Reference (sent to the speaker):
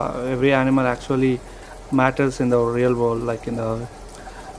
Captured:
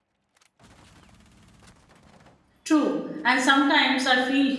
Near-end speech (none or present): present